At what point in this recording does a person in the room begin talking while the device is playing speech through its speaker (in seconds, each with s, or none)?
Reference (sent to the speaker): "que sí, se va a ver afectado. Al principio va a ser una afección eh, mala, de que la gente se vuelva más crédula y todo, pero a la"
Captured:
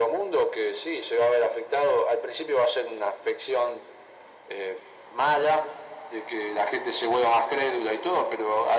none